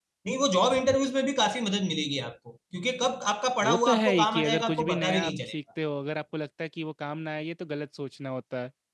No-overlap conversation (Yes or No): No